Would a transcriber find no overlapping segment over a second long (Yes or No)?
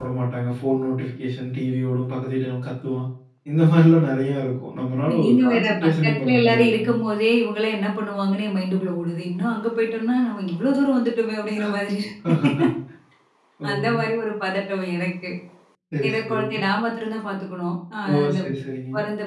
No